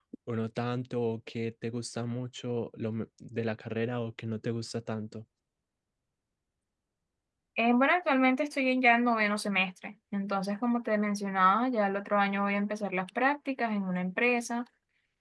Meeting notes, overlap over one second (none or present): none